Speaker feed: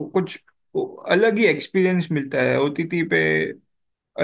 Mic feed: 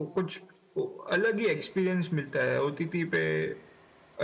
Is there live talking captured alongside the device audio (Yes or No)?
No